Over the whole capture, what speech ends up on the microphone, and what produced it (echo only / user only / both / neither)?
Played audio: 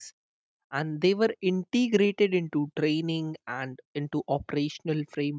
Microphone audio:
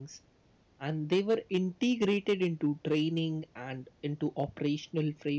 echo only